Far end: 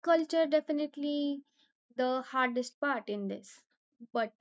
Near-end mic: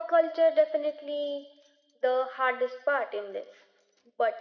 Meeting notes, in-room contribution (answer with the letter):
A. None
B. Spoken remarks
A